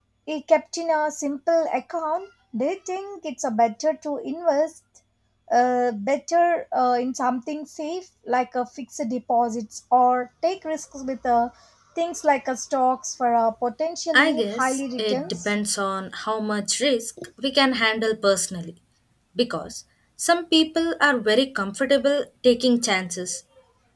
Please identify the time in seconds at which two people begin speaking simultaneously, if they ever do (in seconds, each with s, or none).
14.1 s